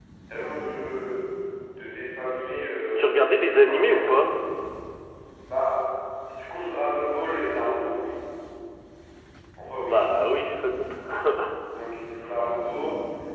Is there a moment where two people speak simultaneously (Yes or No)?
Yes